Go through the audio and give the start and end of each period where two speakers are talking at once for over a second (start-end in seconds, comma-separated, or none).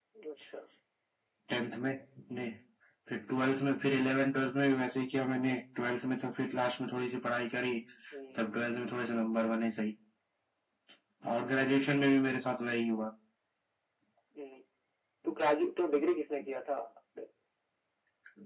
none